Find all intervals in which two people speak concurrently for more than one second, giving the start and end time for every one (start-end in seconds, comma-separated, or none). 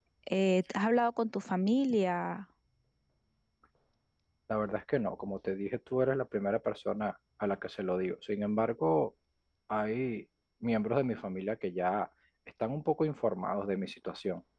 none